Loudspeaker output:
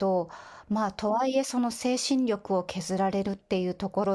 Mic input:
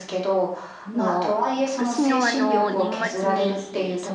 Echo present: Yes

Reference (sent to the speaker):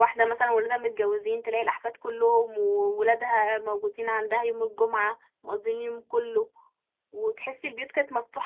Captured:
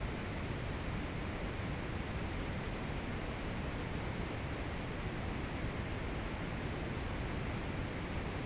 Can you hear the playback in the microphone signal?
No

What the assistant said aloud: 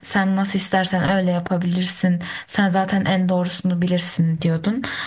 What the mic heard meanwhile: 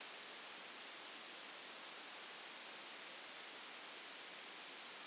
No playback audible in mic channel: Yes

